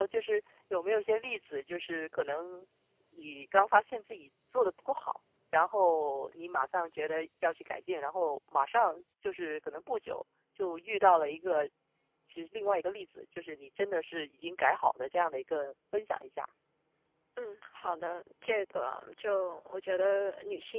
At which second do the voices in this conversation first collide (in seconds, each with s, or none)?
none